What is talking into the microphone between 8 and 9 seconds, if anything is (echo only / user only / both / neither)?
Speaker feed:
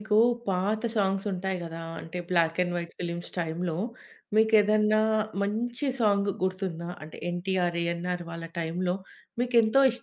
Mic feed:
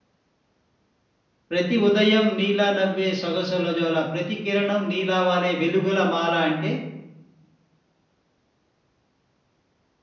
neither